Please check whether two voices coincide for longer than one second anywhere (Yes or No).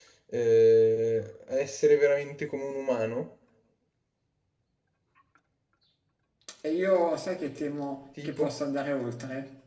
No